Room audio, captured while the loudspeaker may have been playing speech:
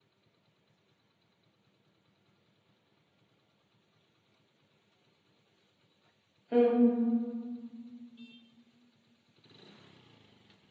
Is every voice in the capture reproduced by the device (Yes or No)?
No